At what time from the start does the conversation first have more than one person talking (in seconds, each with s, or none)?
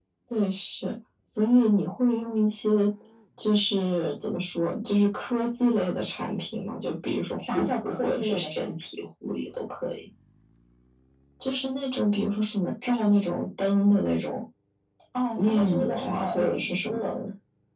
7.4 s